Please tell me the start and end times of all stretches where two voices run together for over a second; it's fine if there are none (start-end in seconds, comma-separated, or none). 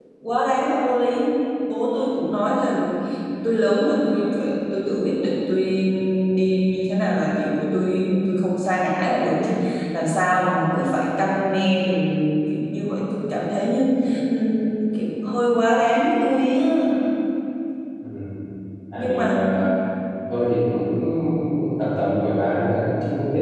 none